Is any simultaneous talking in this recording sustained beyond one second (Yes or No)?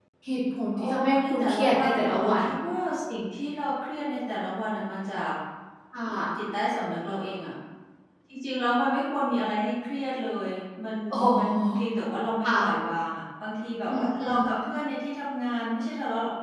Yes